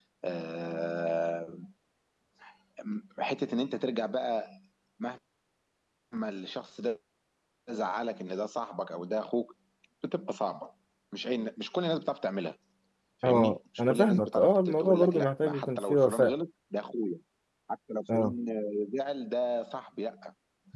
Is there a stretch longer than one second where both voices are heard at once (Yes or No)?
Yes